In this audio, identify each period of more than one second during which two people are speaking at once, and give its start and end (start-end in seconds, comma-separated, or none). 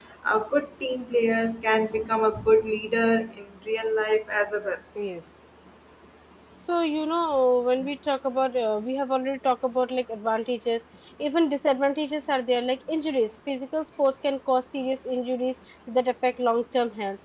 none